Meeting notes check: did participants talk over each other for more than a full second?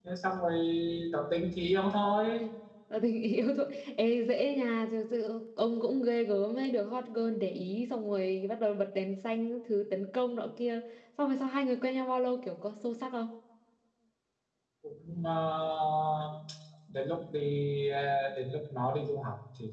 No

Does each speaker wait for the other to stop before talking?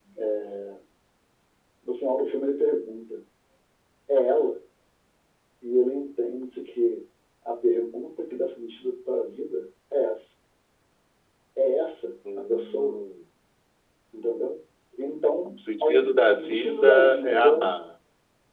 No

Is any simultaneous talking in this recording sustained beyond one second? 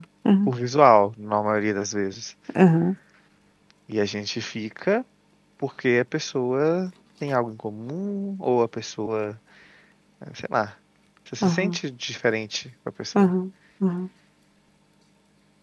No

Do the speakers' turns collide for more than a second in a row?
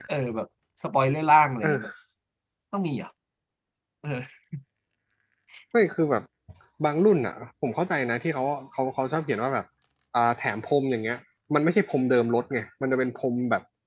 No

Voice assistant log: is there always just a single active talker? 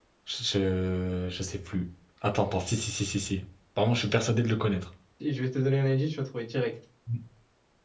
Yes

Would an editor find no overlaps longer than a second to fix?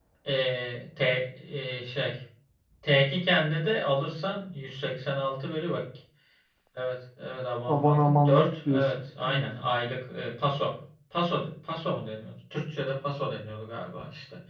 No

